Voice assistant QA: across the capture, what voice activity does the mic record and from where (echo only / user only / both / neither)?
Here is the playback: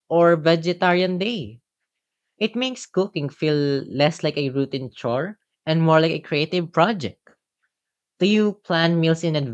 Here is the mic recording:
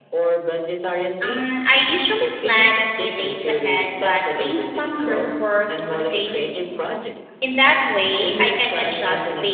both